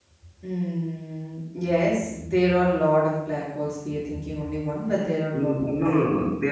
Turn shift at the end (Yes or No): Yes